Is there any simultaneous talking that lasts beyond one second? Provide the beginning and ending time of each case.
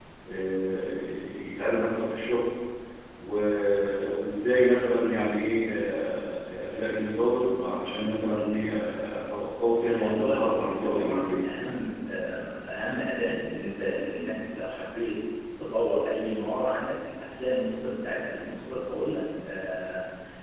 9.8-11.5

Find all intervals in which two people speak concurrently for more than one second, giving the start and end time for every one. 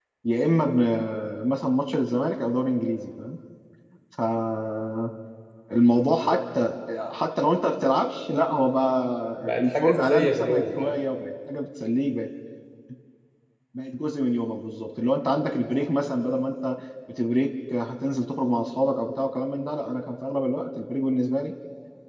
9.6-11.0

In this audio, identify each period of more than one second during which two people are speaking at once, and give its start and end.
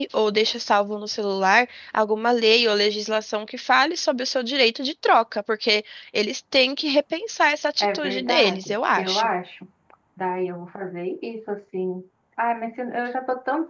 7.8-9.3

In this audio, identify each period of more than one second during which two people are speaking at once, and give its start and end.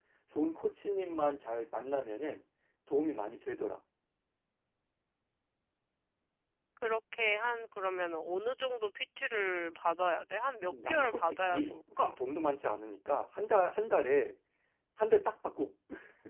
10.7-12.2

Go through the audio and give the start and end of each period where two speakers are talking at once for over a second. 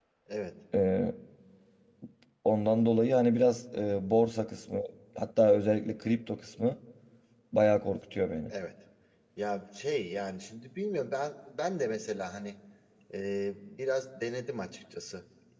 none

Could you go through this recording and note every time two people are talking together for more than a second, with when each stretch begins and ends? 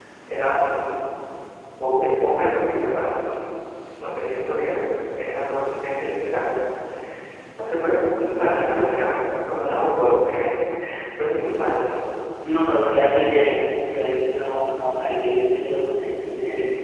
none

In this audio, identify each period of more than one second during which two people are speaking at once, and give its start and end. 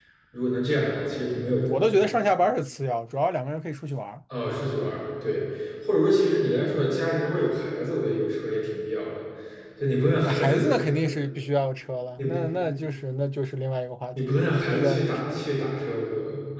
14.2-15.4

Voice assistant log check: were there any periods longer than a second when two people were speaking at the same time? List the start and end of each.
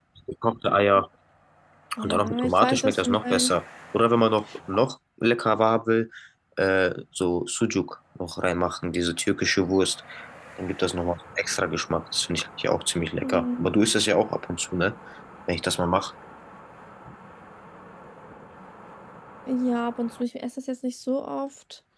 2.0-3.5

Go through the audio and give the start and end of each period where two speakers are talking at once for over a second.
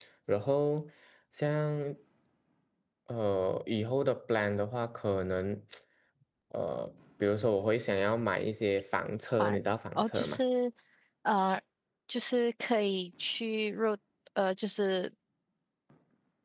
none

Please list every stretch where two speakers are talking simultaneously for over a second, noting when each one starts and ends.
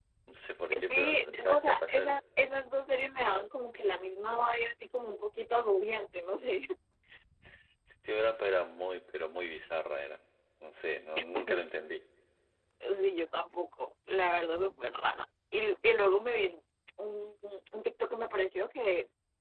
0.9-2.1

